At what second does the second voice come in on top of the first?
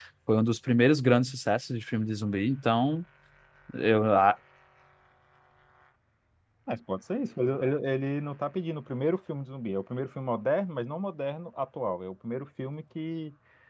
none

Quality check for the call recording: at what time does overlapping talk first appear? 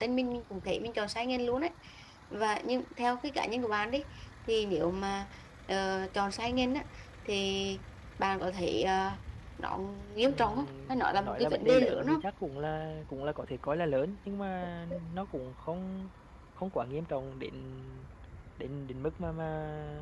10 s

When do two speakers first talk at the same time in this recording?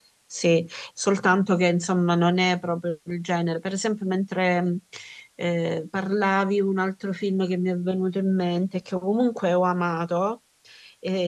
none

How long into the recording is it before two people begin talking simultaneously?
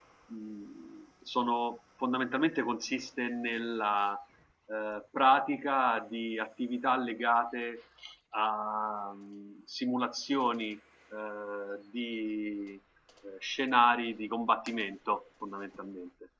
none

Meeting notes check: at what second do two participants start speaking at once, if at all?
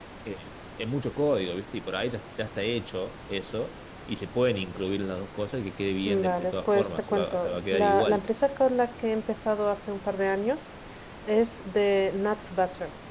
6 s

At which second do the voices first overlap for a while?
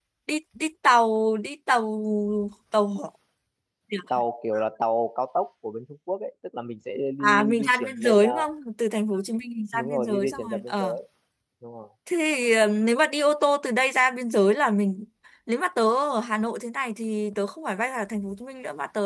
7 s

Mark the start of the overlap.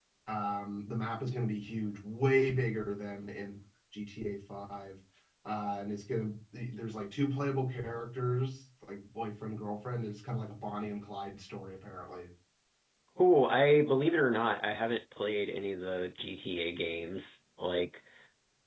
none

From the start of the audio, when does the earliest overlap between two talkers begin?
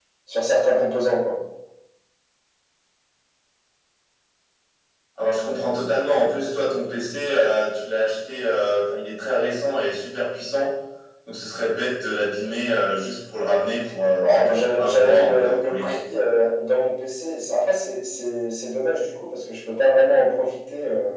14 s

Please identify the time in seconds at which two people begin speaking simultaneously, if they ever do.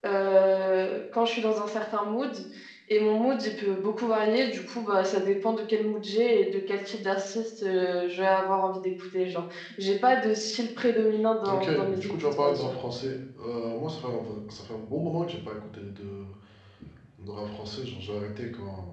11 s

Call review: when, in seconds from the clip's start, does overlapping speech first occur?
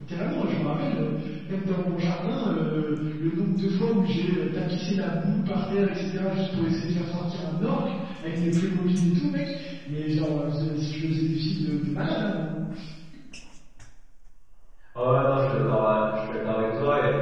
none

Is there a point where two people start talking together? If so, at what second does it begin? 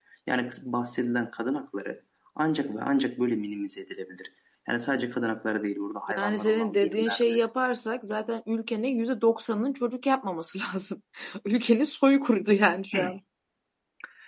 6 s

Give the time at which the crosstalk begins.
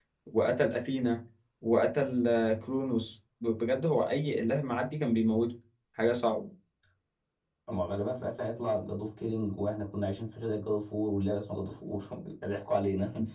none

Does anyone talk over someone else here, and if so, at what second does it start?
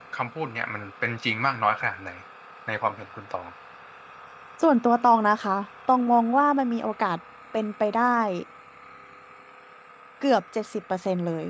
none

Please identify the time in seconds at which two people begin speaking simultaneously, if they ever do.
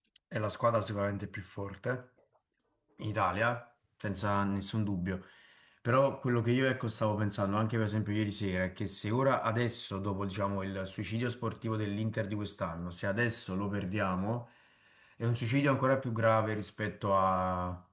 none

